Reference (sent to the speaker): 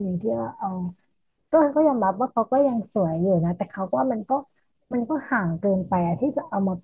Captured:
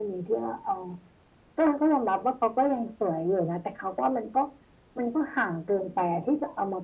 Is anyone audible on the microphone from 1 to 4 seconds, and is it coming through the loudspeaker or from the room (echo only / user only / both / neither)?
echo only